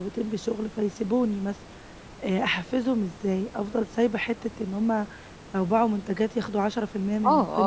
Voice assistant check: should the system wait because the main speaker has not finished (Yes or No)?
No